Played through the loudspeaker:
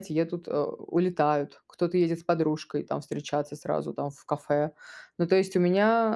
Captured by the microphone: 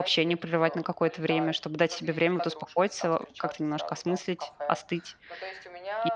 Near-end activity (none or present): present